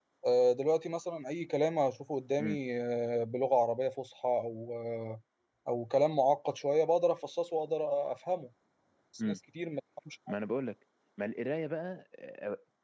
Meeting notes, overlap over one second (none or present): none